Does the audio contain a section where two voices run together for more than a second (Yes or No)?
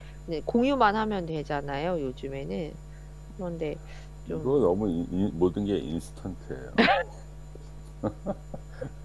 No